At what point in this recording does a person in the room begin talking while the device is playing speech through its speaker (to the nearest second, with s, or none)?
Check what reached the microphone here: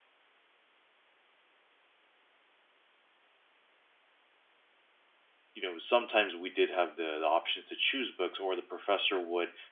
6 s